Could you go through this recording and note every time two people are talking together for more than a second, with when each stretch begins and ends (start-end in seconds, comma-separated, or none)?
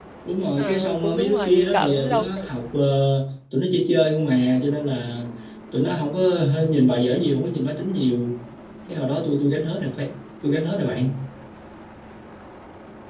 0.6-2.6